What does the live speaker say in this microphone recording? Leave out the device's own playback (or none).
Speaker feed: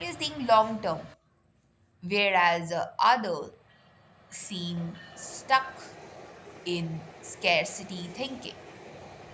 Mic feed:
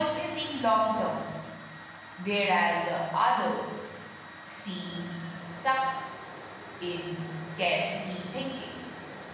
none